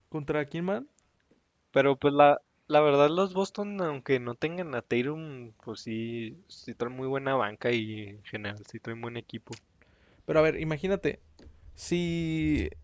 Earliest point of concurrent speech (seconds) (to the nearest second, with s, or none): none